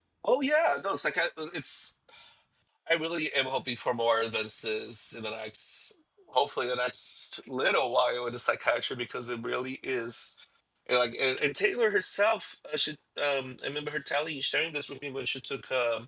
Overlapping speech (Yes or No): No